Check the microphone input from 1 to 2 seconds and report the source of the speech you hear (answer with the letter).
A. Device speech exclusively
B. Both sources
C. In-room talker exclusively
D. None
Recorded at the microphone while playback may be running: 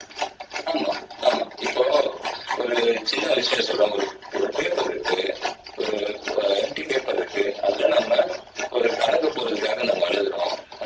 A